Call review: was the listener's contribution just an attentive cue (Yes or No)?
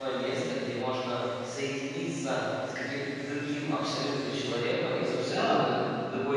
Yes